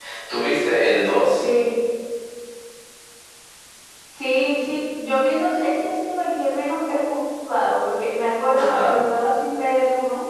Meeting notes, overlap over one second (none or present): none